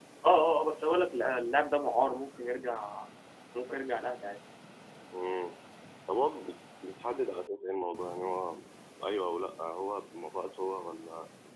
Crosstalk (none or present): none